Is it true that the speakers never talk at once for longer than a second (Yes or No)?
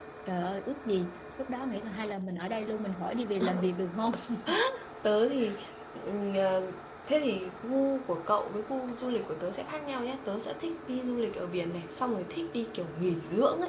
Yes